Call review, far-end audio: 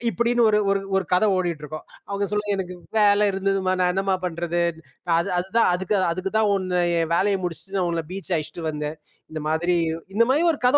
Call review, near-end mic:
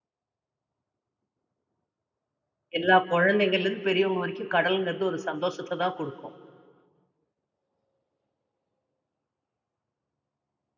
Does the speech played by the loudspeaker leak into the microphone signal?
No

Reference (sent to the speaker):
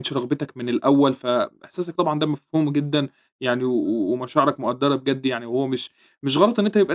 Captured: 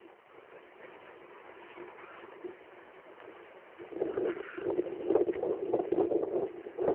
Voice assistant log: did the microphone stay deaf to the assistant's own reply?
Yes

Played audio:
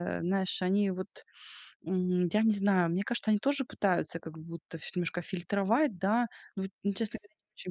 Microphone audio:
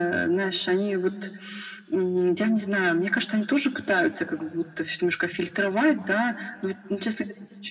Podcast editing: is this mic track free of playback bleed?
No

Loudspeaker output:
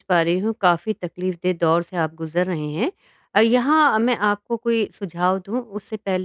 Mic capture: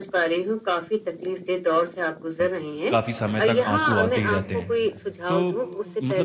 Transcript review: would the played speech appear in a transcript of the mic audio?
Yes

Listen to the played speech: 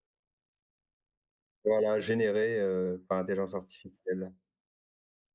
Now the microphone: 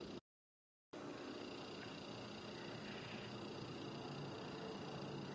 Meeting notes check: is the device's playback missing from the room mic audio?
Yes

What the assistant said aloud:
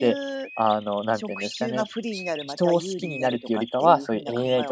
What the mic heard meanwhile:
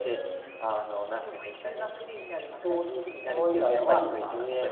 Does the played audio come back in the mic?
Yes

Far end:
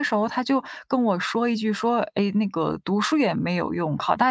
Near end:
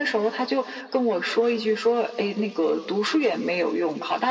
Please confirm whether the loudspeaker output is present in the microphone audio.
Yes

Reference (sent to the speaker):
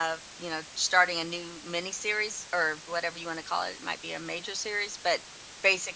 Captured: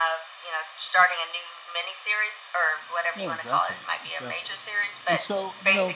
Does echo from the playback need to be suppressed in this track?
Yes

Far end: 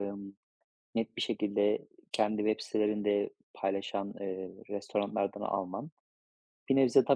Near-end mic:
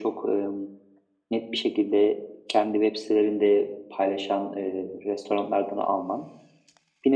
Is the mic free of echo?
No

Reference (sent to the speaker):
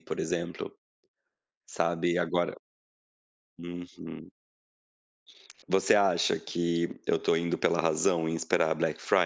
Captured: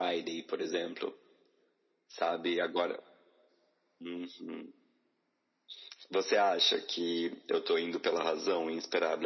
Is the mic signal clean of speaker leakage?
No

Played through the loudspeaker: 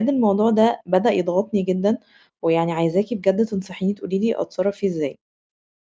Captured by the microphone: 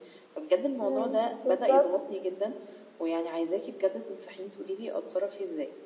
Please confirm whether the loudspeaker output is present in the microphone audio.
Yes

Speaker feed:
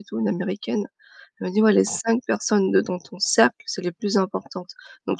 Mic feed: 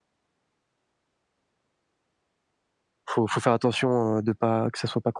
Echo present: No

